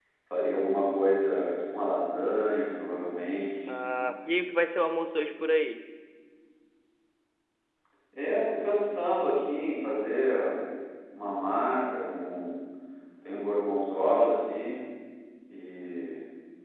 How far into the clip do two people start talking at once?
none

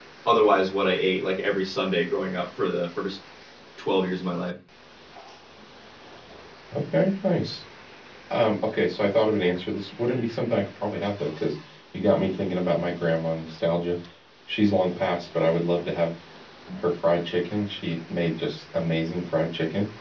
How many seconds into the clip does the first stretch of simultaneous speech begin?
none

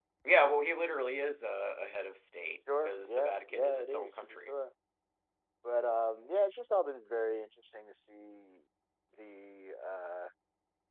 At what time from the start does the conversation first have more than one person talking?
2.7 s

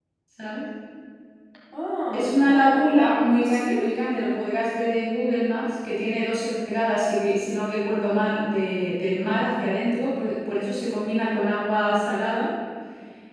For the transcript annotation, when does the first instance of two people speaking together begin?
2.1 s

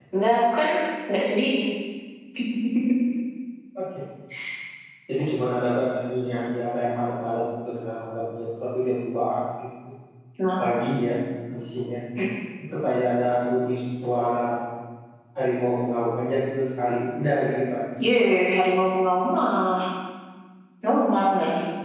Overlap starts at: none

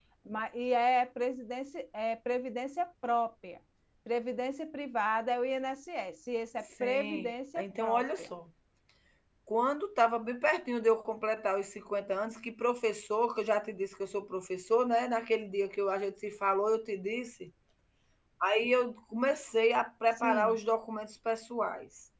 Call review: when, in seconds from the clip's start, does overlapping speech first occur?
6.8 s

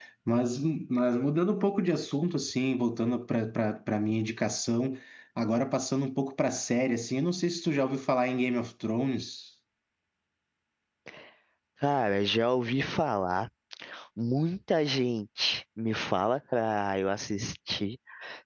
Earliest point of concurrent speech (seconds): none

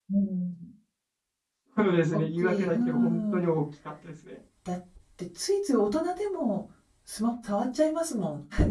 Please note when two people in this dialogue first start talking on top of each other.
2.1 s

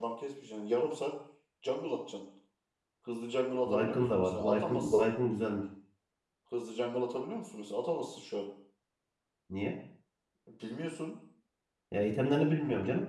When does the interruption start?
3.7 s

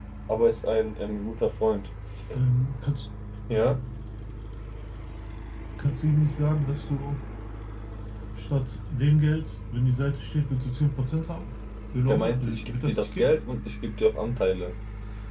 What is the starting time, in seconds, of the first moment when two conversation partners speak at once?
12.1 s

